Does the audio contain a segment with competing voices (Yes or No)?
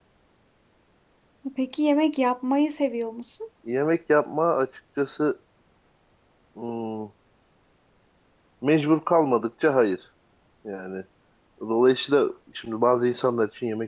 No